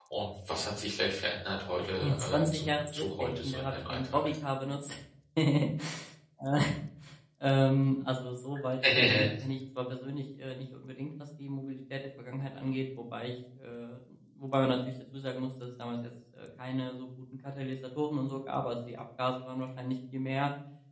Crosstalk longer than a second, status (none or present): present